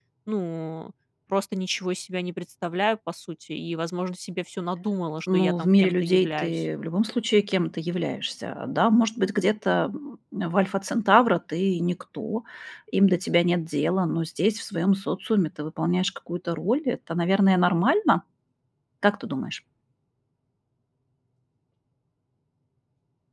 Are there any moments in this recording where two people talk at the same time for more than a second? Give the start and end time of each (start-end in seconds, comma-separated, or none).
5.3-6.6